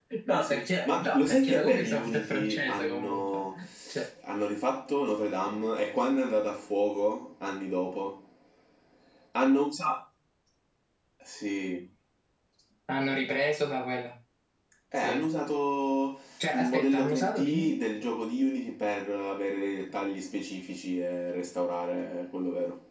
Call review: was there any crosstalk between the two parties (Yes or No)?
Yes